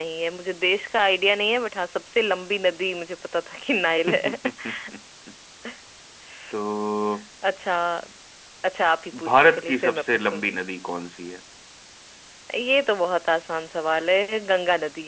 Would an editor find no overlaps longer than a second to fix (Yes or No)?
No